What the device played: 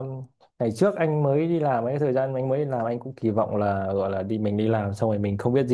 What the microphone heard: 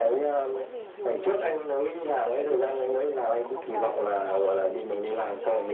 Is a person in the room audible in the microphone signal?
Yes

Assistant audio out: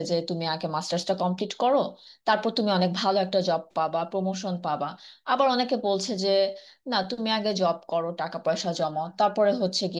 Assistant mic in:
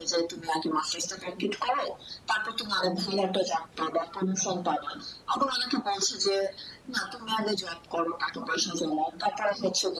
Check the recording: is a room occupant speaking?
No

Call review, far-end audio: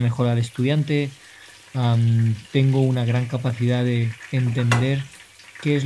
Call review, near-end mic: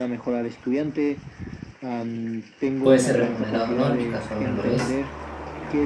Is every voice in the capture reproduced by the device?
No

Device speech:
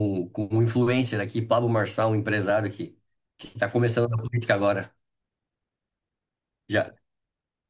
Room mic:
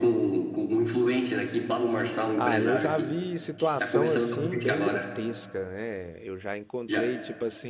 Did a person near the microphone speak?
Yes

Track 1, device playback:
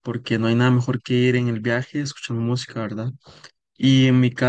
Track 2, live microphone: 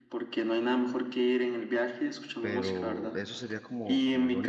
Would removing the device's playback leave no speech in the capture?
No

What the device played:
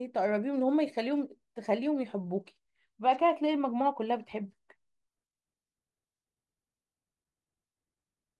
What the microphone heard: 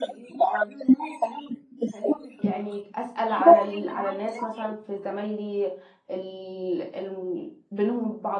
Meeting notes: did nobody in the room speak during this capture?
No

